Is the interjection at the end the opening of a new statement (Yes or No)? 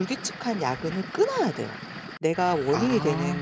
No